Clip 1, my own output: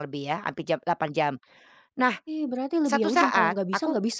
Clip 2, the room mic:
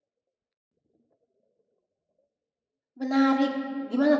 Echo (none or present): none